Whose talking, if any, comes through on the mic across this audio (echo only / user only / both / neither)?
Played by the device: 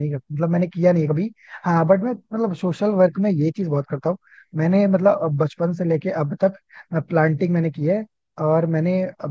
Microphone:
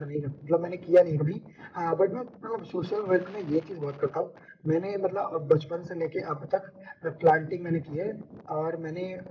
echo only